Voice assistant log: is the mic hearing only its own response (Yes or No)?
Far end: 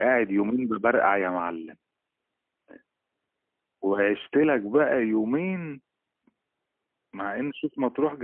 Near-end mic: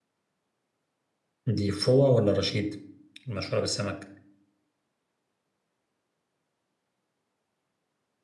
No